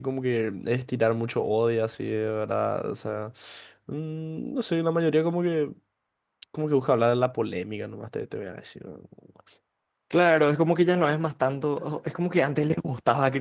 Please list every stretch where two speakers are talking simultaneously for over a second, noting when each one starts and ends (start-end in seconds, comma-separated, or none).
none